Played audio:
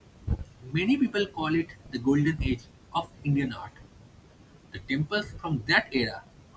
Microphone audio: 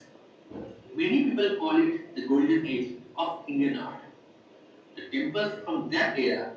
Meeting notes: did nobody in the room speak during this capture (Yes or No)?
Yes